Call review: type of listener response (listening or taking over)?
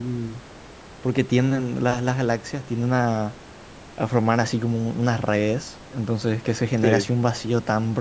listening